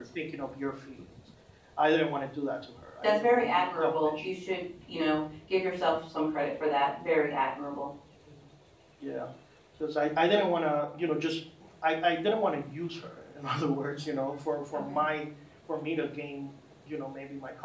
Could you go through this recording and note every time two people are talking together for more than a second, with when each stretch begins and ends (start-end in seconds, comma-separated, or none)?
3.0-4.3